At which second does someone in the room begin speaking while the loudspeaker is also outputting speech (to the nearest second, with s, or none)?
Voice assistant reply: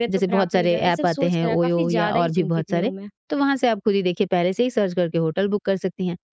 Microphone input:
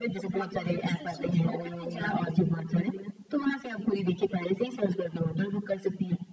none